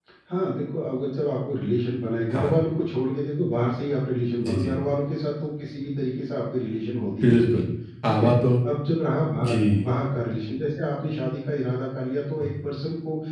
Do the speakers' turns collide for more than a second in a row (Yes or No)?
No